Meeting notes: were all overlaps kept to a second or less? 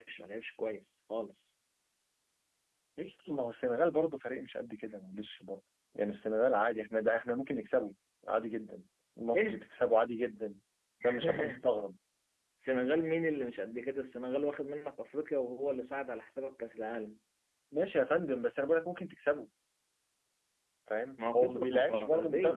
No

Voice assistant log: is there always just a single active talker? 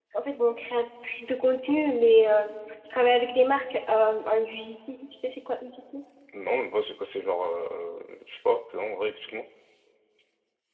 Yes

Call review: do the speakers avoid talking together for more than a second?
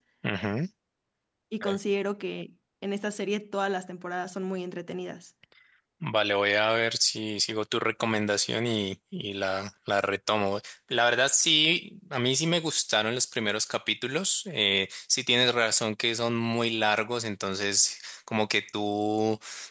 Yes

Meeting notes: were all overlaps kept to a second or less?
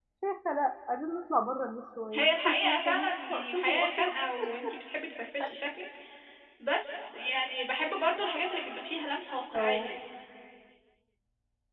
No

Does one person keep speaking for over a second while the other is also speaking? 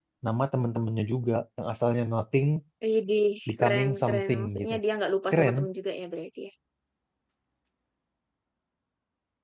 Yes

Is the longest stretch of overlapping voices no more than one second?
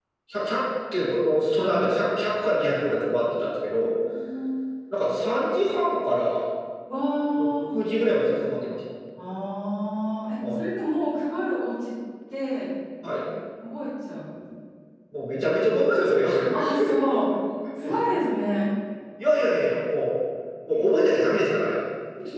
Yes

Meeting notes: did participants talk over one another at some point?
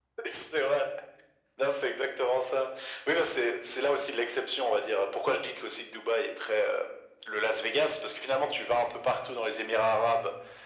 No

